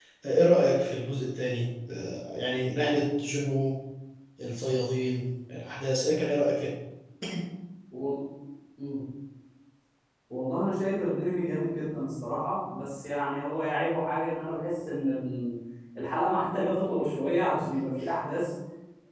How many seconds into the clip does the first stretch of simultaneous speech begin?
none

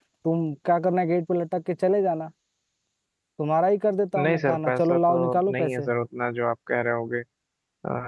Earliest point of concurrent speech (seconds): 4.2 s

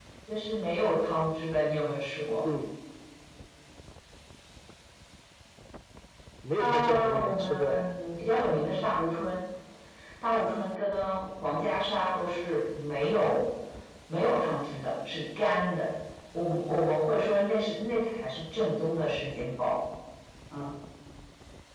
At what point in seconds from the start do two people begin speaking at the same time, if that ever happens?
6.5 s

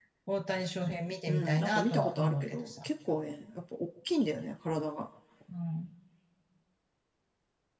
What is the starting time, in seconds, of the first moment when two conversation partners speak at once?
1.3 s

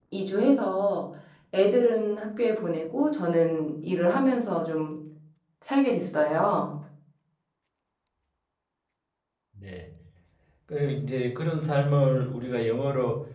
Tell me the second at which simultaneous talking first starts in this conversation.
none

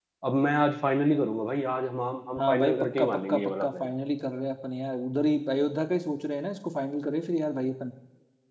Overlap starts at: 2.4 s

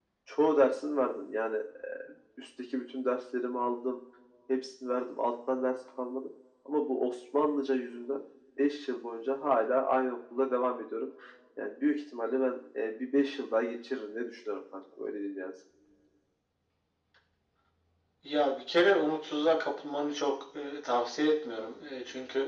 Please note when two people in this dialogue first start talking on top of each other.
none

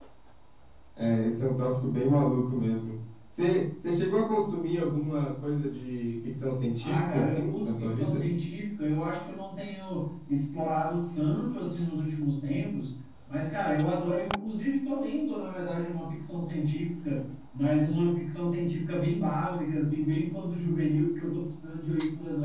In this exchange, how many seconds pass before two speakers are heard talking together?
6.8 s

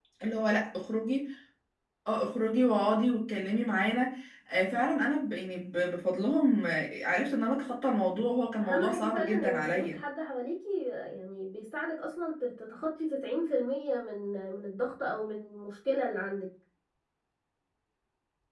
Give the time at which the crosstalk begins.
8.6 s

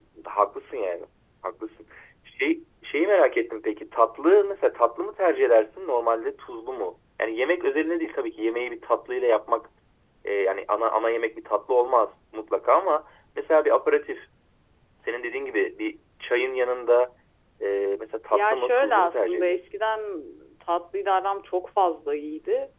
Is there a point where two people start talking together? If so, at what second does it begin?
18.3 s

